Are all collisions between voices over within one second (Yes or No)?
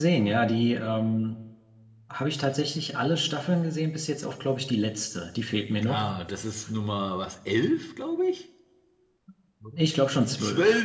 Yes